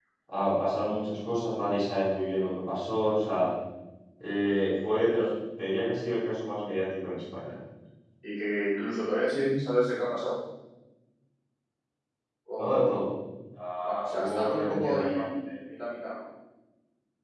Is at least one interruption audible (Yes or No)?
Yes